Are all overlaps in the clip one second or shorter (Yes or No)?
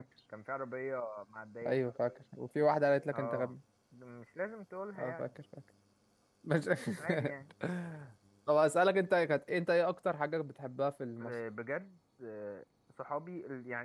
Yes